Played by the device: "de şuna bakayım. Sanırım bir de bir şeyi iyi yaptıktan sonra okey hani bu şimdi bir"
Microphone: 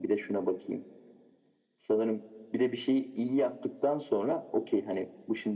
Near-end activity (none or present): none